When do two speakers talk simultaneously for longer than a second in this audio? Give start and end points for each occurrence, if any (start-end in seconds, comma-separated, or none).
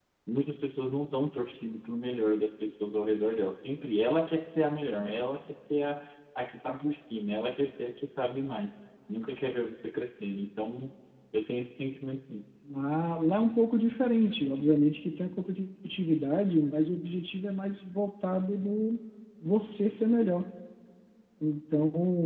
none